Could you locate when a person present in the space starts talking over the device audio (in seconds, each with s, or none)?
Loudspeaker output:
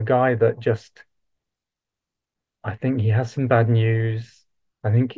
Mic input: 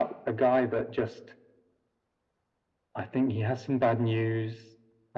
none